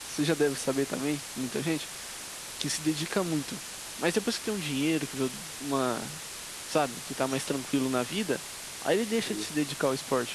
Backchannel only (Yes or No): Yes